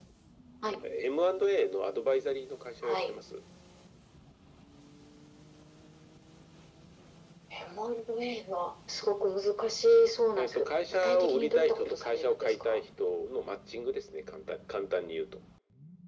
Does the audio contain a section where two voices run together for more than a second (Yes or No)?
Yes